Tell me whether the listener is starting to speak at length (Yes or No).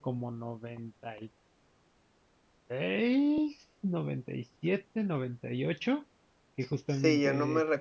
Yes